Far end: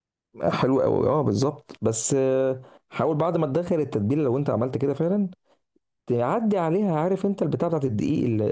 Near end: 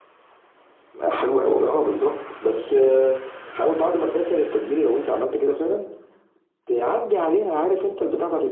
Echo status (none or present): present